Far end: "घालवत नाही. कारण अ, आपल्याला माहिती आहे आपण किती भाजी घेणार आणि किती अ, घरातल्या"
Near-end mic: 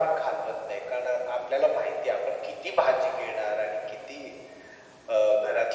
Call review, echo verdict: present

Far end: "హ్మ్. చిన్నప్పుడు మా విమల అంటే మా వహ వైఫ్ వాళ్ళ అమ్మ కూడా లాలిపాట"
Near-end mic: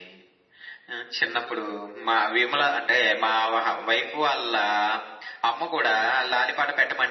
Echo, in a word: present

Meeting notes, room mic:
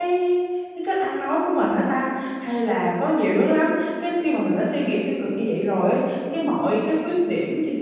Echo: none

